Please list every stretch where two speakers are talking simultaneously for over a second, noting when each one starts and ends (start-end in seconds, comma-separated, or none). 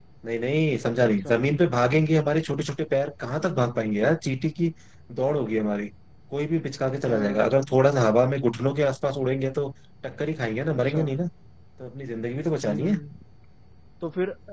none